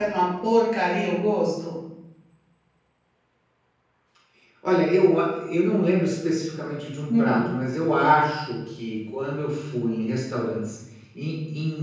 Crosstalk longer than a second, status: none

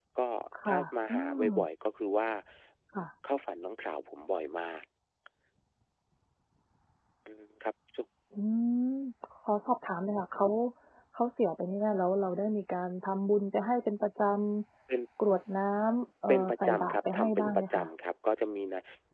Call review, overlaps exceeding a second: present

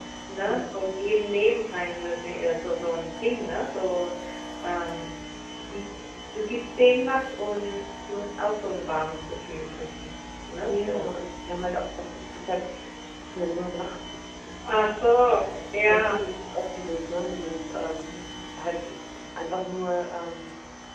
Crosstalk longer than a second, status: none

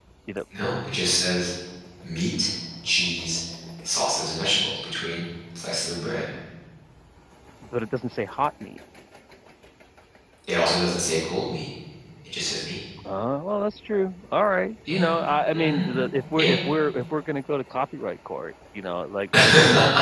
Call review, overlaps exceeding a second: none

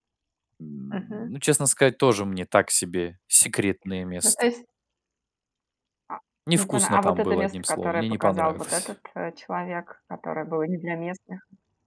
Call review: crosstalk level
present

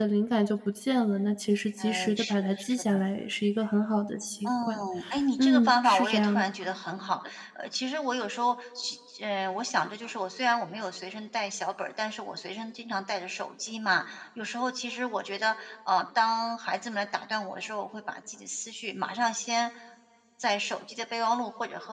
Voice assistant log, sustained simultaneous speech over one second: present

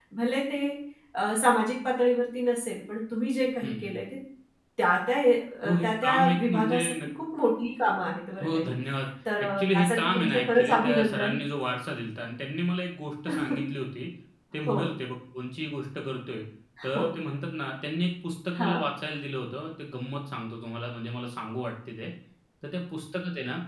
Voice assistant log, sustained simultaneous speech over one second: present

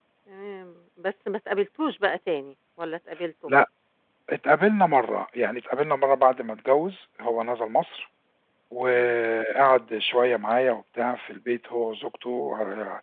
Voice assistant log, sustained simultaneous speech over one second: none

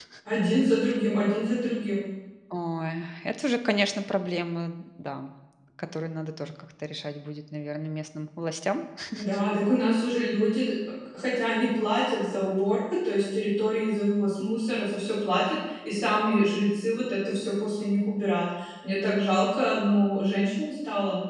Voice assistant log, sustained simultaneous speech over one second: none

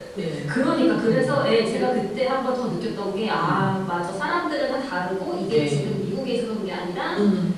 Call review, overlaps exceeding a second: none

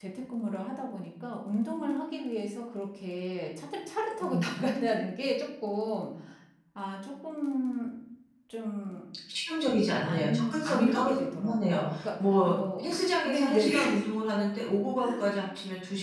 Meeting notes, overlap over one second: present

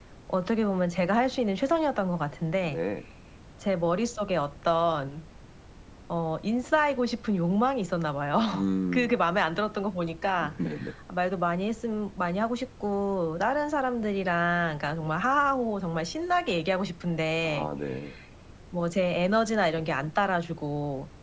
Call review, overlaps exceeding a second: none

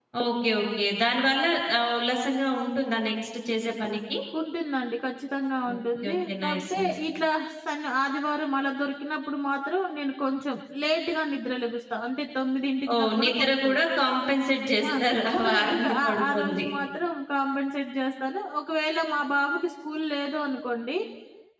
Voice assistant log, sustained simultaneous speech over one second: present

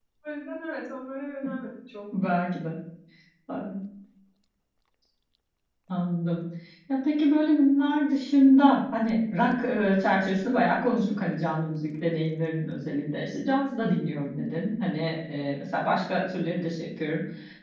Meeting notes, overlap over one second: none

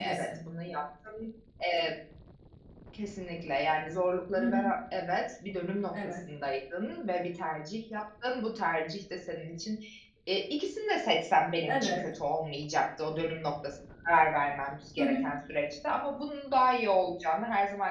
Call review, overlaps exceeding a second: none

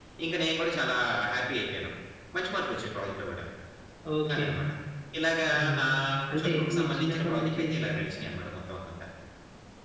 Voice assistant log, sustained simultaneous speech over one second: present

